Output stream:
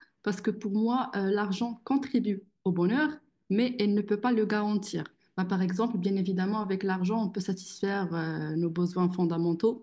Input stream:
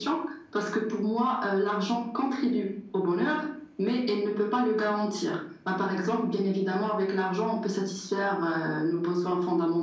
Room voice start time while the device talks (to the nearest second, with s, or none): none